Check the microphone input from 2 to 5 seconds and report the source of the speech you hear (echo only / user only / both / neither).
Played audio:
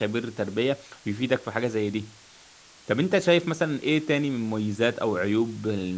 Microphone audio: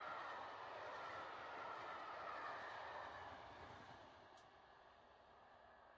neither